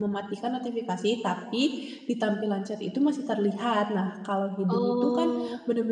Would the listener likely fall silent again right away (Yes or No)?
Yes